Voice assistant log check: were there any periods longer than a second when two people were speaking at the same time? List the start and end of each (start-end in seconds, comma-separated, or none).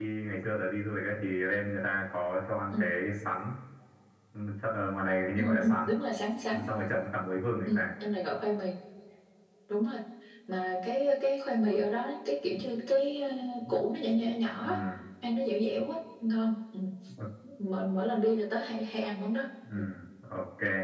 none